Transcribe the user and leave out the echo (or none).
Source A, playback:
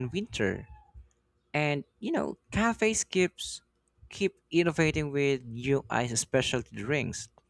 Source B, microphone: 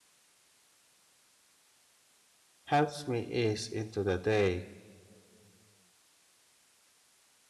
helps me ease into the day.